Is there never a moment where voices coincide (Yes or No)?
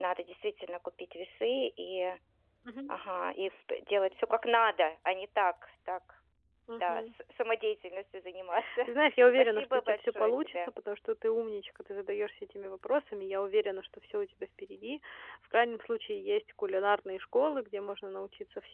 No